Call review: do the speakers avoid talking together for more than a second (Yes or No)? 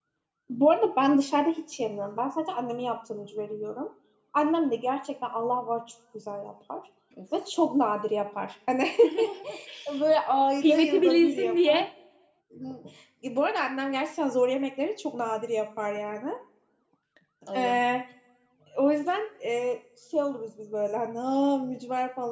No